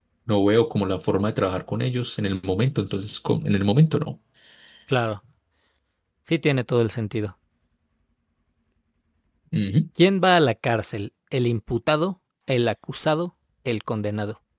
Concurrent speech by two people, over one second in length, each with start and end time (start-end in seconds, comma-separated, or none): none